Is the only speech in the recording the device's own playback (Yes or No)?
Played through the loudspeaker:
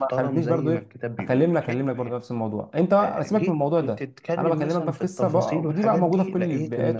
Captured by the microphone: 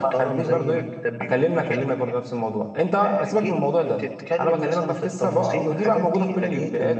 Yes